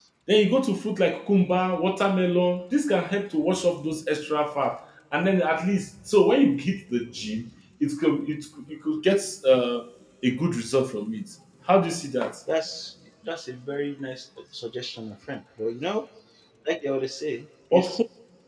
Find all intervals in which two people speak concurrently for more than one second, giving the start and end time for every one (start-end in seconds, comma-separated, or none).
none